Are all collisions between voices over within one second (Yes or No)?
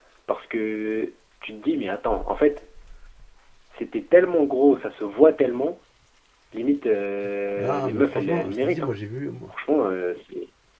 No